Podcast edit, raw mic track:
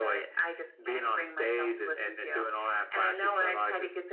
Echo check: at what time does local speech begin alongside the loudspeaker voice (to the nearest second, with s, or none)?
none